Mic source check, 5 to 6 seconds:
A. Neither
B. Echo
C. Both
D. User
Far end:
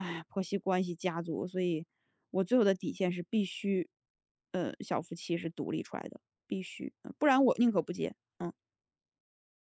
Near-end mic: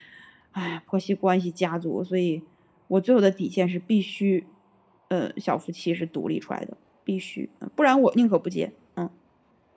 B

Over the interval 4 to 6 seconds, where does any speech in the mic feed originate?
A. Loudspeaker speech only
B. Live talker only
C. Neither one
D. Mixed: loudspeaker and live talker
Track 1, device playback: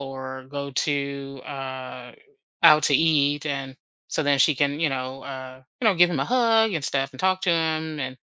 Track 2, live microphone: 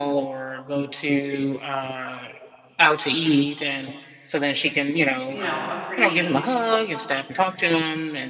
D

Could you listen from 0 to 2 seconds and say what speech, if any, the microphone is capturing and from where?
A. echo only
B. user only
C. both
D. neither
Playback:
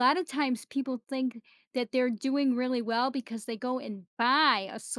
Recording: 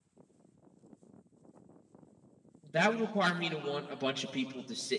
D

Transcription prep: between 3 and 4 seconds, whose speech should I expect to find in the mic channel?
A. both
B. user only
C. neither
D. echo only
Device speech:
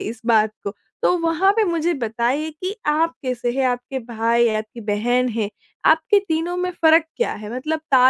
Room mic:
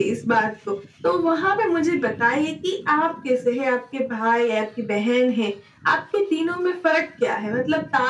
D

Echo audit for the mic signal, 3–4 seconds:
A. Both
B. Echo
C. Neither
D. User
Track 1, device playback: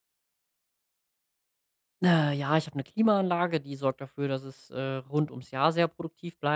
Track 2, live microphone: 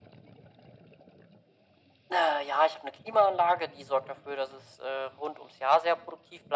B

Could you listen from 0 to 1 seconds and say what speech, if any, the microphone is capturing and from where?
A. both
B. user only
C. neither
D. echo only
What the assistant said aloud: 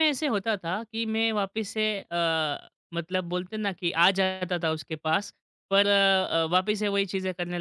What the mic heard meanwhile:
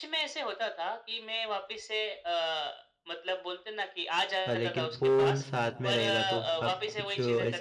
D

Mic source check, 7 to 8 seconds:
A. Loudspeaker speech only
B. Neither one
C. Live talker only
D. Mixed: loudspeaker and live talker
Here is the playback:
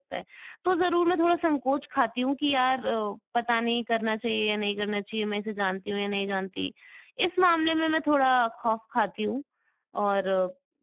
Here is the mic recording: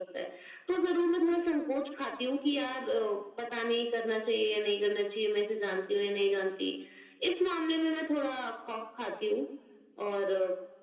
A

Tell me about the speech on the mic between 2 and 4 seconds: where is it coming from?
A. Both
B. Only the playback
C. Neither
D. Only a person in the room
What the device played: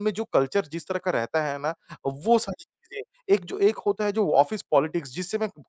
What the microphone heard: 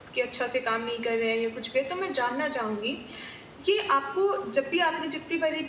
D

